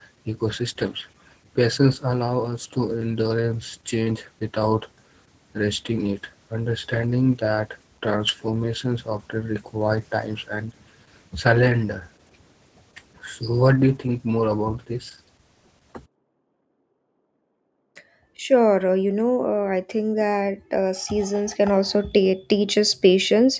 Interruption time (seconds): none

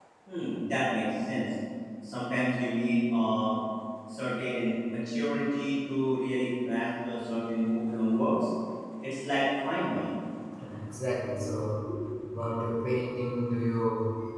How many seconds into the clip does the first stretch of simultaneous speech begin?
none

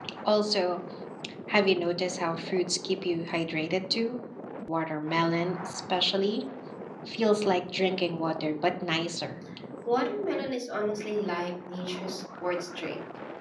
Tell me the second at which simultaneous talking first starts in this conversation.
none

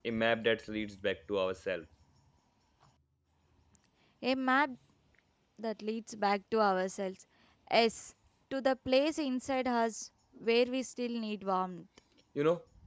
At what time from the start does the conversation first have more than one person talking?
none

